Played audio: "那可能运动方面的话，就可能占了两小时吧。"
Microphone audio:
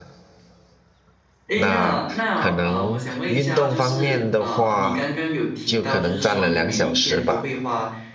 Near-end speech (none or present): present